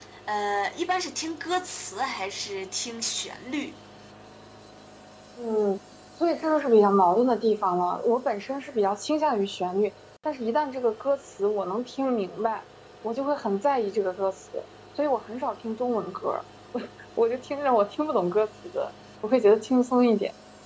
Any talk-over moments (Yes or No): No